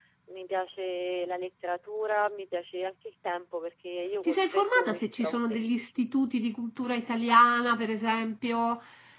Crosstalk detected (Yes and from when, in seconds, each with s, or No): Yes, from 4.3 s